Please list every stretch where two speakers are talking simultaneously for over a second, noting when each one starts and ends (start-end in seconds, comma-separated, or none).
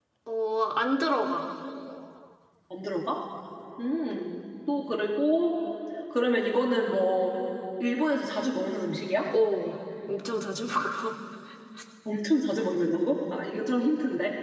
none